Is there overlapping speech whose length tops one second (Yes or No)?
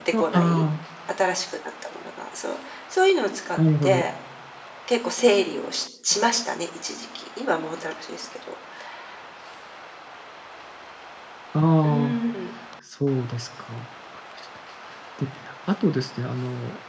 No